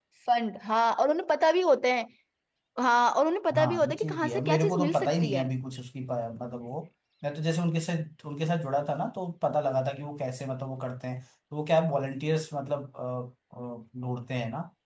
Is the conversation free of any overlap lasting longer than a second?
No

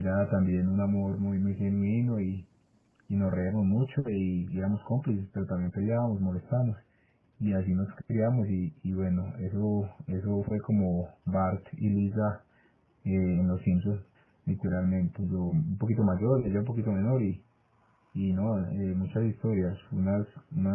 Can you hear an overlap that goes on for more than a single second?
No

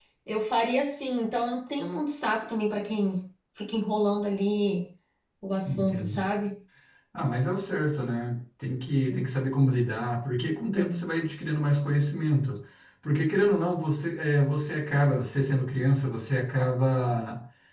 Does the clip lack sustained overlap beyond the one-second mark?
Yes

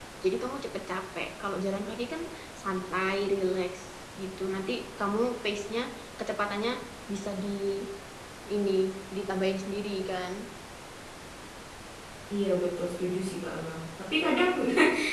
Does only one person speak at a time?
Yes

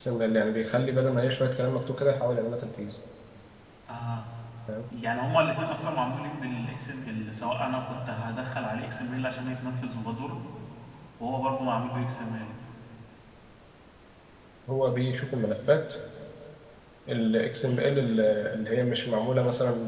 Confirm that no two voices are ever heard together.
Yes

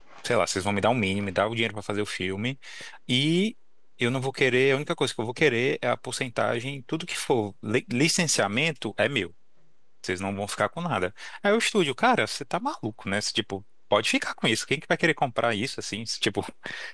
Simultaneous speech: No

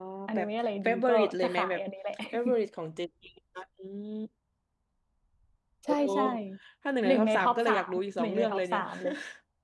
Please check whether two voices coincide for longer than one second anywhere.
Yes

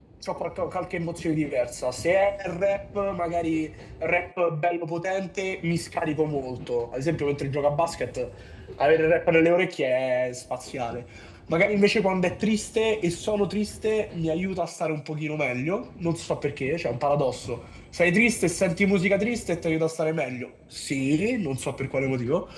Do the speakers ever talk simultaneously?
No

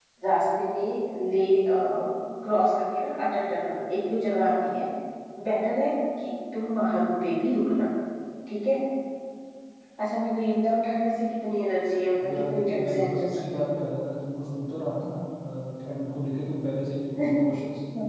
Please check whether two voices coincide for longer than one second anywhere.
Yes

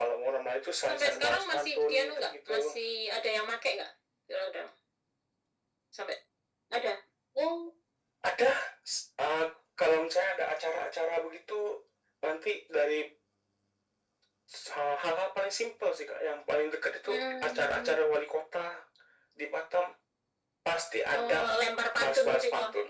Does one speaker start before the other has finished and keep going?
Yes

